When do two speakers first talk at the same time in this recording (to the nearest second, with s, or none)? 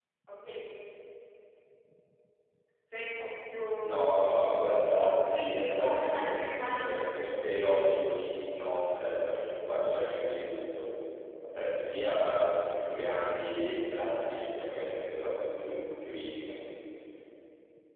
4 s